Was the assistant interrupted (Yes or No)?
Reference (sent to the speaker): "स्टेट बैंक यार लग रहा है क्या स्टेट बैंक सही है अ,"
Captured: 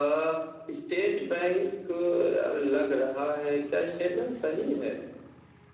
No